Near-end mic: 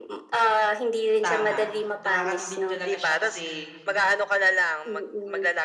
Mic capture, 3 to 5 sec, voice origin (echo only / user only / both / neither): both